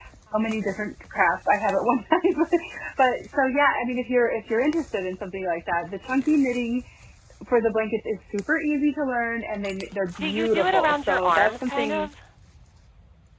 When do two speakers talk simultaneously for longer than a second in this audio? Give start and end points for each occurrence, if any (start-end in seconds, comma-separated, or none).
10.2-12.1